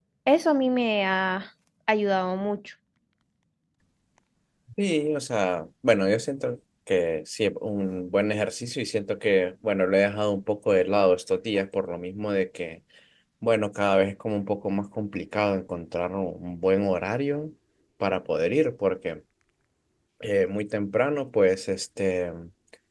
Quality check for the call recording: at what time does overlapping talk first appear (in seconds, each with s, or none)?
none